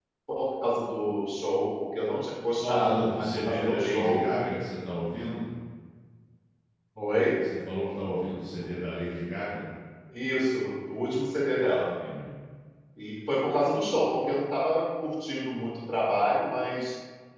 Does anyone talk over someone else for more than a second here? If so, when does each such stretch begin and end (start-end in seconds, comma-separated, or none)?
2.5-4.2